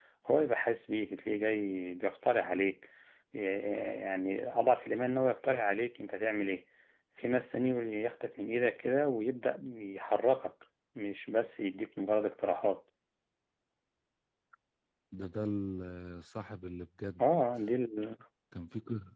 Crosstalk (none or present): none